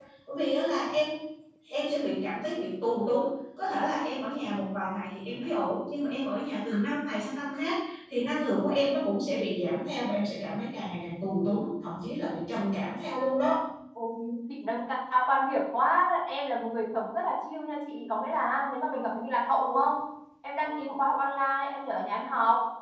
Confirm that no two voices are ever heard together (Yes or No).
Yes